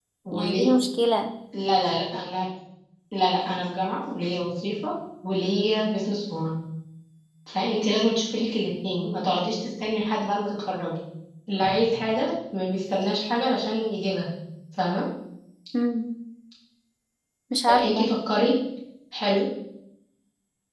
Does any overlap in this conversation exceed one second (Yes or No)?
No